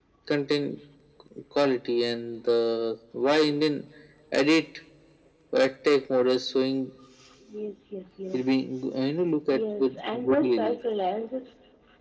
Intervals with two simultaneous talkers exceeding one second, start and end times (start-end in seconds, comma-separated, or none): 9.5-10.8